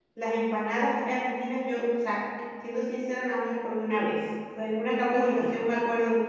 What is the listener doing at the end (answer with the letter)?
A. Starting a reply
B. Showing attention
B